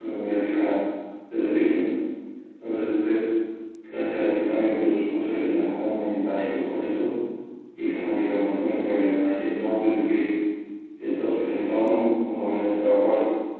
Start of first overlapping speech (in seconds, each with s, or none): none